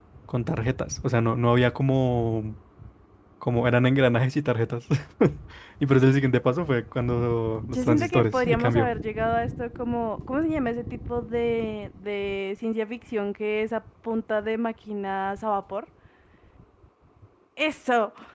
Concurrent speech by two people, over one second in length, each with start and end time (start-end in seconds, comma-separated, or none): 7.6-8.9